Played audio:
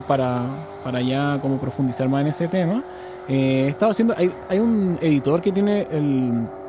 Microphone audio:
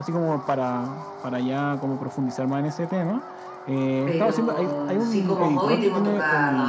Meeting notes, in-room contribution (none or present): present